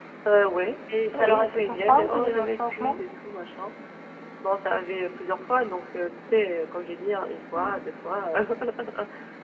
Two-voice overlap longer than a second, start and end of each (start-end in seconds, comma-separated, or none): 1.1-3.0